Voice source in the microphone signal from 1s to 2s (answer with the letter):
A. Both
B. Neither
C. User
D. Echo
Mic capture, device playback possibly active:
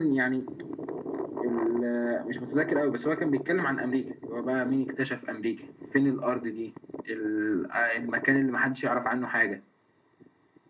D